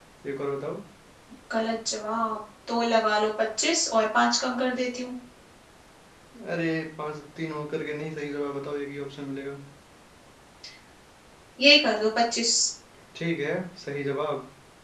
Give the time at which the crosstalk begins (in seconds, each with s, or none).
none